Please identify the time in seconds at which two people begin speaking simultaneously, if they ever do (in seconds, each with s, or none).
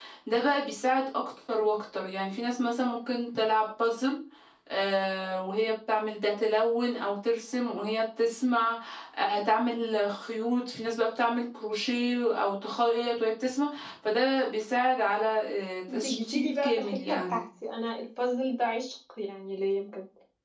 15.9 s